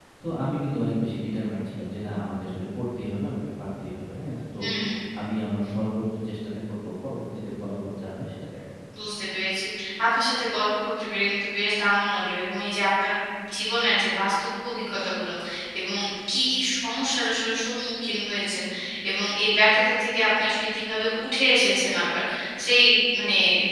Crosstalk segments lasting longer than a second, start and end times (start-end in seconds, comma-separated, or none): none